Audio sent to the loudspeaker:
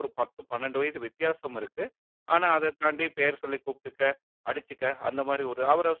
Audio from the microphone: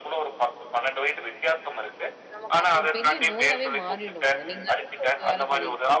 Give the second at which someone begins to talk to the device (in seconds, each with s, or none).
2.3 s